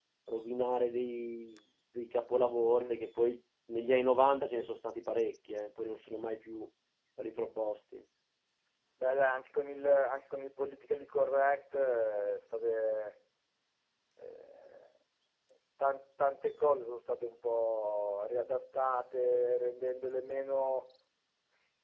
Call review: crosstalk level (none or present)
none